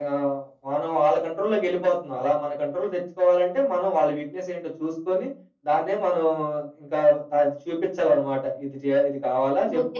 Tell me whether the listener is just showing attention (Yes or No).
No